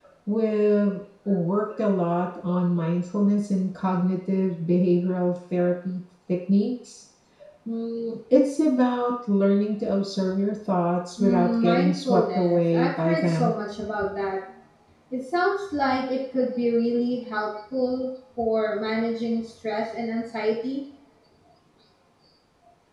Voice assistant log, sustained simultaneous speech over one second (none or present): present